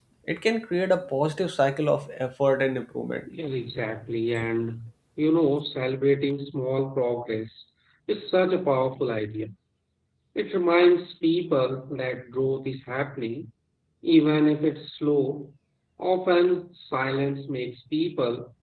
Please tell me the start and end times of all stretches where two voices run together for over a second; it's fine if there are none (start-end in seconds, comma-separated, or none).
none